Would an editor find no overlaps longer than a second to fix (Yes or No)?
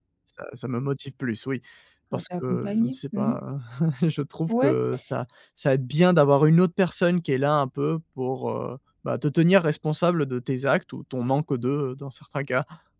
No